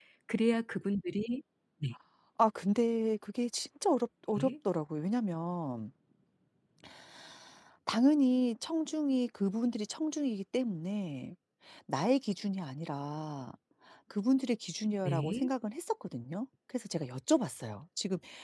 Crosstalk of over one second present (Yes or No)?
No